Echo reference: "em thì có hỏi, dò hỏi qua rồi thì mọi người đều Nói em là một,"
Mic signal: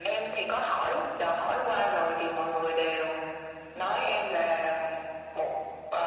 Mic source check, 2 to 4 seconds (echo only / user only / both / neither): echo only